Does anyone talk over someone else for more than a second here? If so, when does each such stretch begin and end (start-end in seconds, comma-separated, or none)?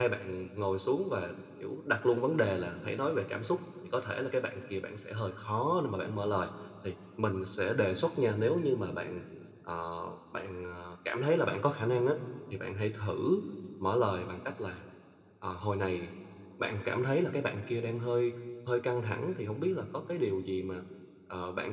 none